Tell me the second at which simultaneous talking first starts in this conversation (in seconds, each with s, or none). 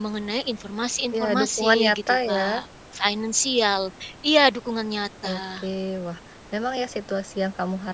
1.1 s